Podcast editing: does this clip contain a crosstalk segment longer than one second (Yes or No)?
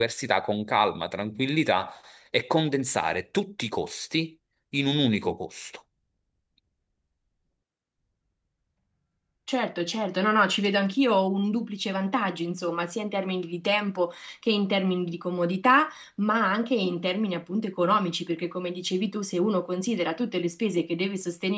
No